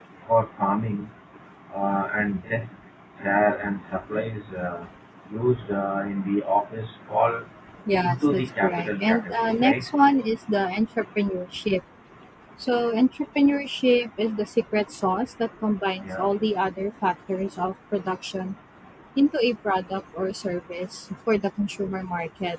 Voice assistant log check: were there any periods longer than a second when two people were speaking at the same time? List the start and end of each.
8.0-9.9

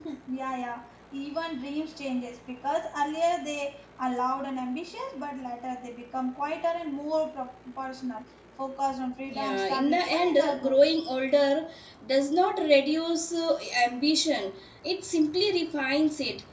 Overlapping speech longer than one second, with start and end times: 9.3-10.8

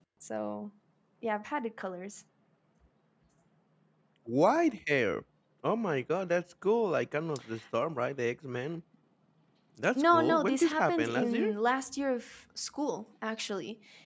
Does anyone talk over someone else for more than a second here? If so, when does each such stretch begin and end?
9.9-11.5

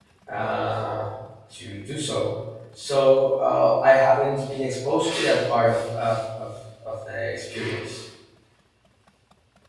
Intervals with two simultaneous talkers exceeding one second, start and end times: none

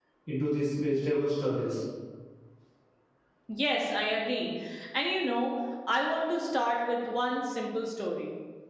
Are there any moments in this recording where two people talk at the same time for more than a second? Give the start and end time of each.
none

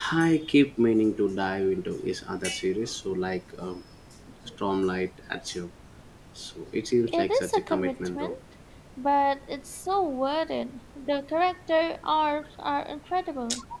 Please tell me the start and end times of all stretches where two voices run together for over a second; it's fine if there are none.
7.1-8.3

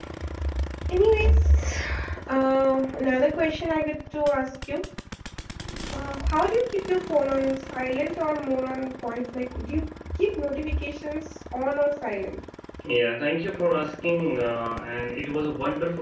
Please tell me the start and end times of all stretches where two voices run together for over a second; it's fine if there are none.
none

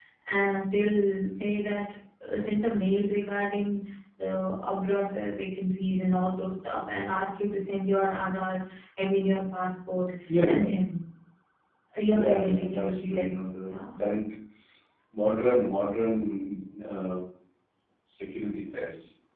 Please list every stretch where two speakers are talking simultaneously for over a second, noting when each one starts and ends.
12.1-13.3

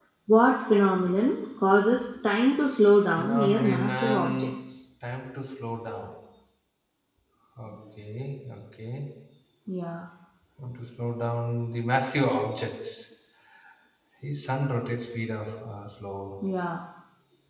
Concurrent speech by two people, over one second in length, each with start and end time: 3.2-4.5

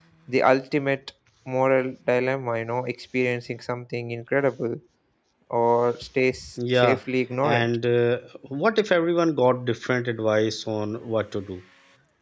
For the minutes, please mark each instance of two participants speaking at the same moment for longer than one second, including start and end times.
none

